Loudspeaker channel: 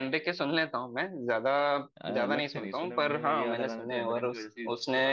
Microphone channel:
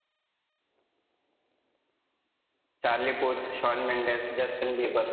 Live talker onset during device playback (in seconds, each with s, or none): 2.8 s